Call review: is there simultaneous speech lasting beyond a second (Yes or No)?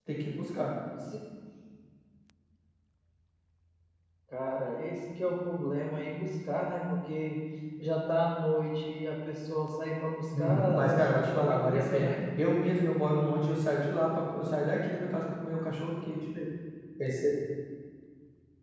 Yes